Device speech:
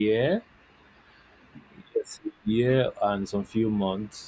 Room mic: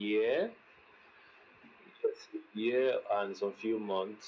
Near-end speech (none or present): none